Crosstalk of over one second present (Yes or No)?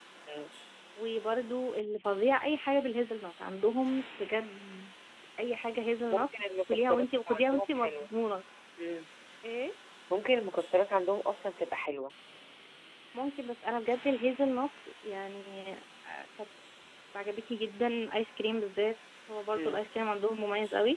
Yes